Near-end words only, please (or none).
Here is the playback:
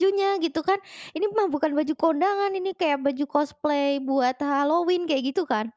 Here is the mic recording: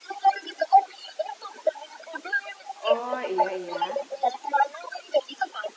Oh, iya iya.